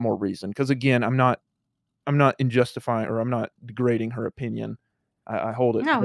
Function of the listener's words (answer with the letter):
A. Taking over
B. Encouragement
B